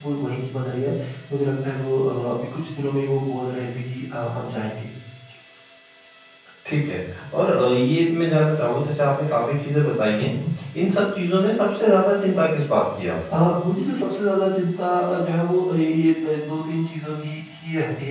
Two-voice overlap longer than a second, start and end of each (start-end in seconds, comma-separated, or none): none